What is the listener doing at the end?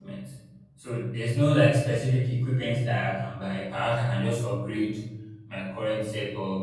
listening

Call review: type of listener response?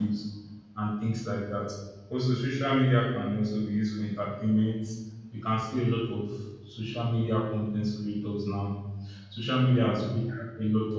listening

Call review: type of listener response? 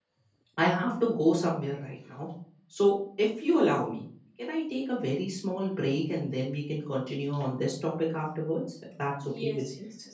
taking over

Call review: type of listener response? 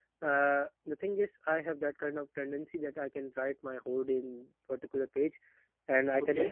listening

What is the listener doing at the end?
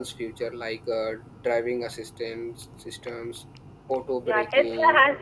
taking over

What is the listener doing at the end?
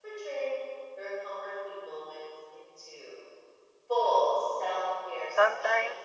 taking over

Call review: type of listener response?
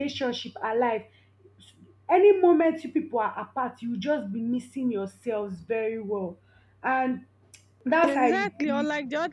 taking over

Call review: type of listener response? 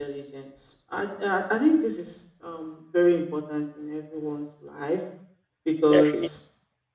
listening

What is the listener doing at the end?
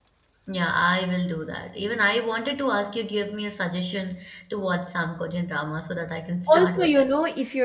taking over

